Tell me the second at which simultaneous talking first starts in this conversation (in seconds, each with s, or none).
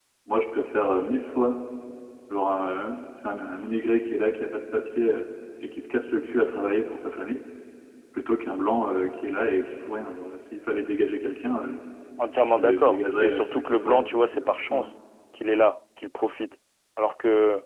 12.6 s